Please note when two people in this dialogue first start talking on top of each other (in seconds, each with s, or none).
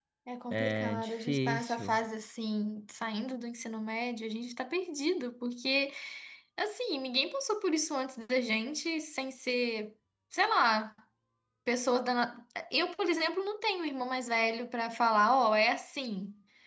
0.5 s